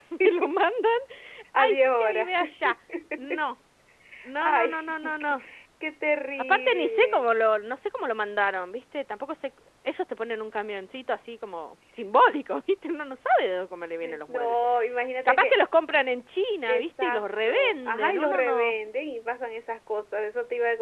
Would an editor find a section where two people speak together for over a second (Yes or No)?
Yes